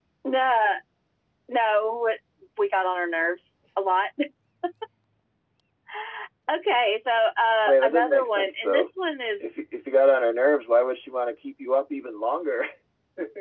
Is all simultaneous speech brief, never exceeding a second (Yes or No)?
No